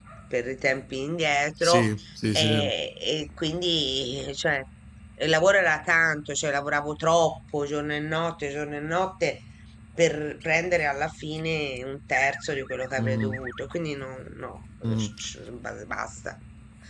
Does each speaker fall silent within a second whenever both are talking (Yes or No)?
Yes